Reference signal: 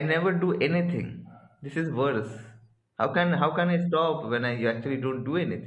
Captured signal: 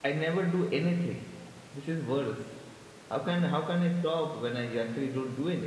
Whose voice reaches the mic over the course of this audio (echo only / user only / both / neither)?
echo only